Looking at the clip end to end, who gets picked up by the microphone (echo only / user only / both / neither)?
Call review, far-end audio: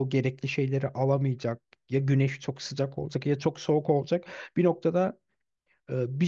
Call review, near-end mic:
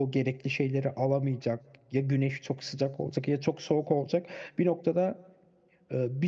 echo only